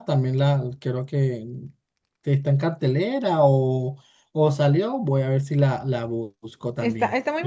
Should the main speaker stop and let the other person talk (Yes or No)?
Yes